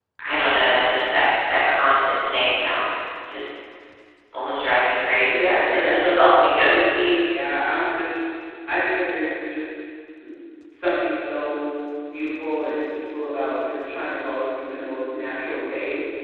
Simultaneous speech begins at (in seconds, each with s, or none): 5.3 s